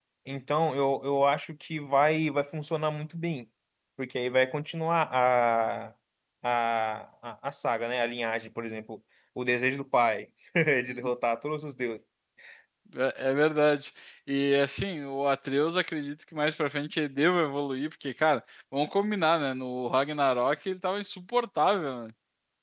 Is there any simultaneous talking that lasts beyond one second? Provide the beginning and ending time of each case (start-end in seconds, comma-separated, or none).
none